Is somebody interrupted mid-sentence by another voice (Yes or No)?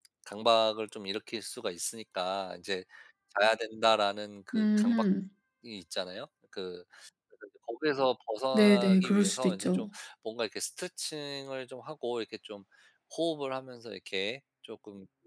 Yes